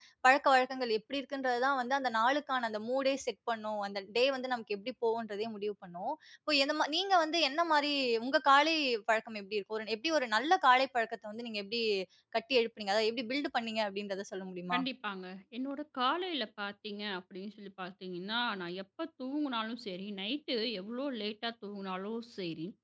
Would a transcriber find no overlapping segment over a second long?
Yes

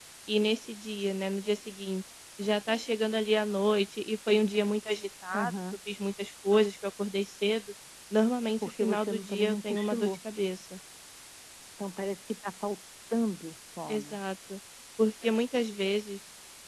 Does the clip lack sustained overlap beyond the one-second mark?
No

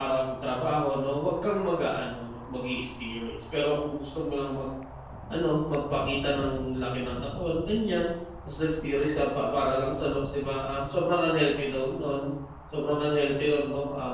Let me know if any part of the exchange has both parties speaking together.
No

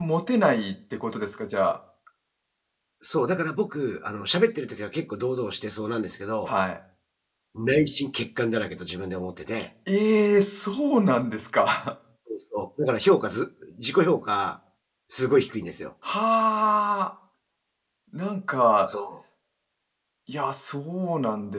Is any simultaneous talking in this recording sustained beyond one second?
No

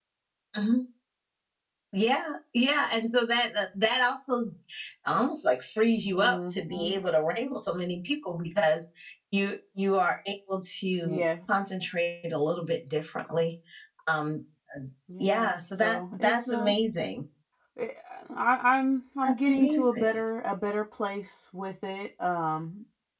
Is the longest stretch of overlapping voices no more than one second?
No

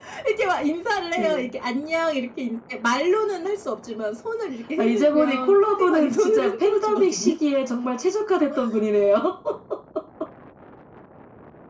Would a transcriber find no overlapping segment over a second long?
No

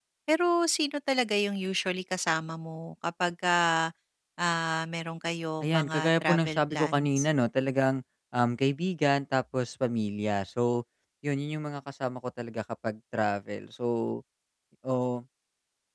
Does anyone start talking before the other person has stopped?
Yes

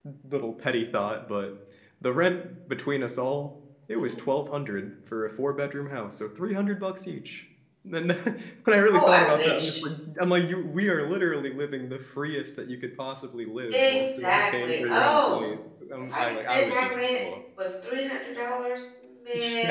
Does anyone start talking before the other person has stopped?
Yes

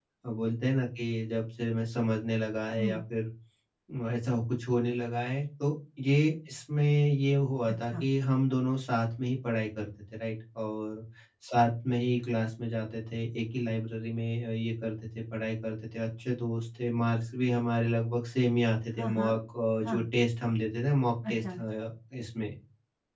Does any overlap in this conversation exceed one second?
No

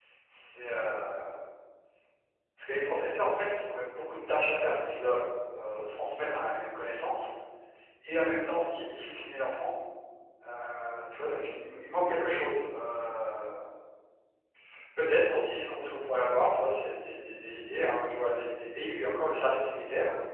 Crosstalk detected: No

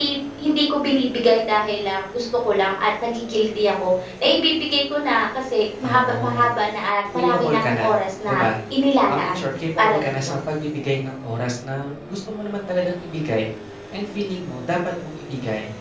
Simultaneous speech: Yes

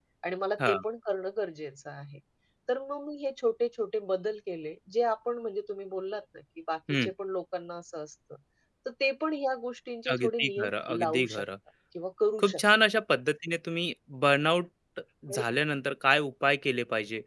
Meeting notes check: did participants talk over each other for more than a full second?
Yes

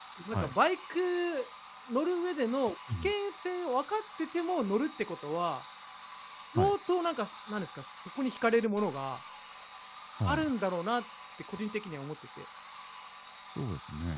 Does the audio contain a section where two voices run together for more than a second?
No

